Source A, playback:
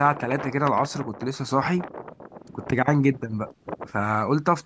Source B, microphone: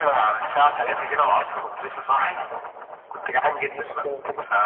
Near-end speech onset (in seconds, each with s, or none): 3.7 s